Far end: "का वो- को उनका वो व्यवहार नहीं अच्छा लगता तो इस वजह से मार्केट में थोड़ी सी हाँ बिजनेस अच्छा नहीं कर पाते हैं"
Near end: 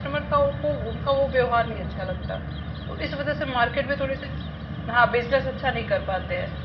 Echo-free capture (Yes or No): No